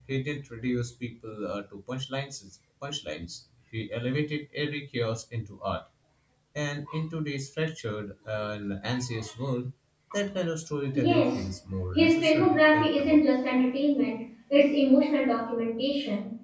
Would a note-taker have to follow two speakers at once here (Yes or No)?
Yes